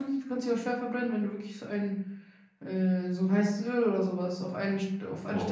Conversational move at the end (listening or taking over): taking over